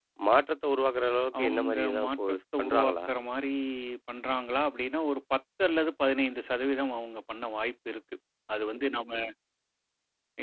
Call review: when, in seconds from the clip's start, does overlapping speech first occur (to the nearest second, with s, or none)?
1 s